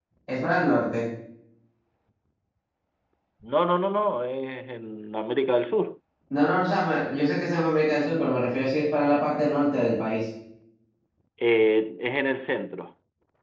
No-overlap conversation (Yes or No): Yes